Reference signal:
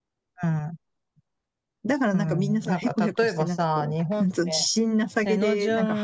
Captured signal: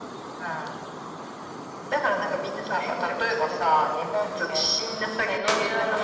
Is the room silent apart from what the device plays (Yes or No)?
Yes